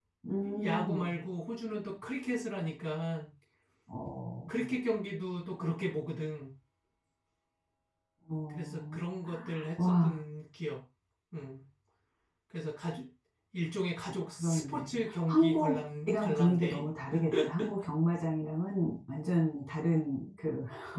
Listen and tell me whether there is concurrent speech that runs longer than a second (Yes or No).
Yes